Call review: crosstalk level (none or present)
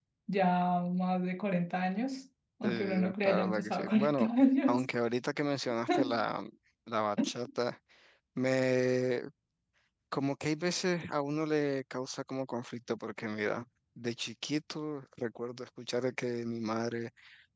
present